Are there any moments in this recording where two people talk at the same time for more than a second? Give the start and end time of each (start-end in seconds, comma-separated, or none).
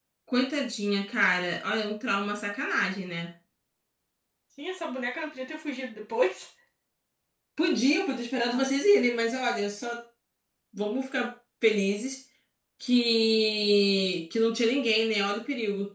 none